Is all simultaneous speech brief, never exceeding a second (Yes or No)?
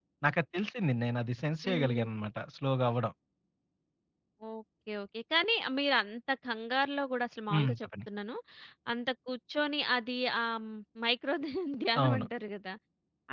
Yes